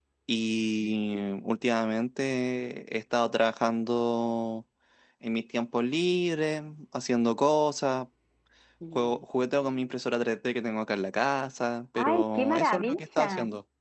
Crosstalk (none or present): present